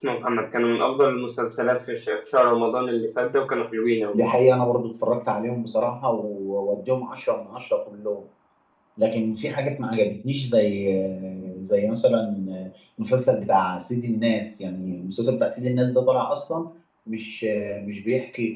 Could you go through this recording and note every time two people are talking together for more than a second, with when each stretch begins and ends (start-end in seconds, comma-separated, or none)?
none